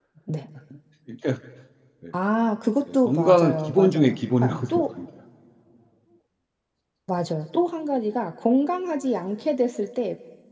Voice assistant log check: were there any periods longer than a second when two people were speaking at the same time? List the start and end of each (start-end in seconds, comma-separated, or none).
2.9-4.8